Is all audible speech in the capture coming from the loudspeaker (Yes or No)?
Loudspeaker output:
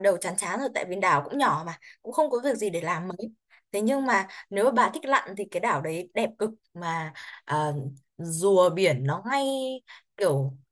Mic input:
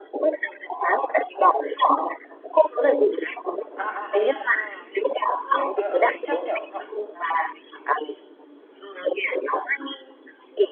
No